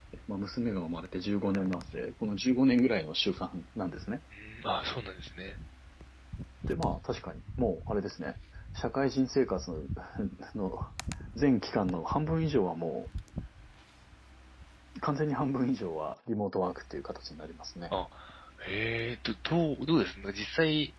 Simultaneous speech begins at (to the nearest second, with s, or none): none